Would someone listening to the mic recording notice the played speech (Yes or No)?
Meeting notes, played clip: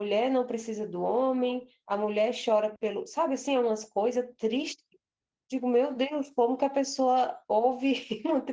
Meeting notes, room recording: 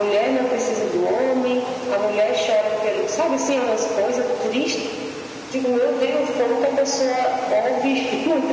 Yes